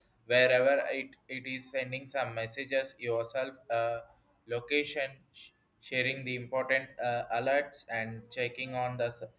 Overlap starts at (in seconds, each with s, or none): none